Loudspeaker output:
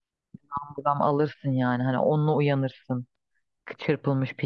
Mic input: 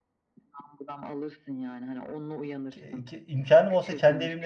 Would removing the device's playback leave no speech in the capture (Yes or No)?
No